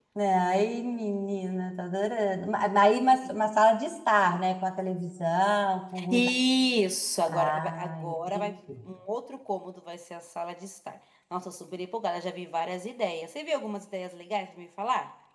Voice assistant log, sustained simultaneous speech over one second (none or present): present